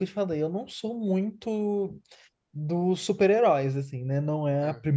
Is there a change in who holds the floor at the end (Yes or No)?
No